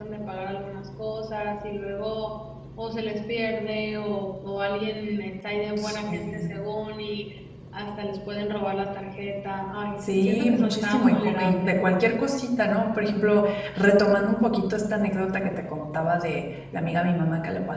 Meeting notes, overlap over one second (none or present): present